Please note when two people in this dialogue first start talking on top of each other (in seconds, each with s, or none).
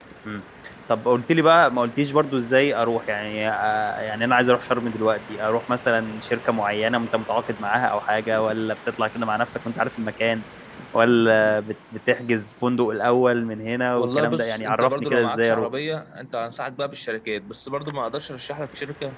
14.0 s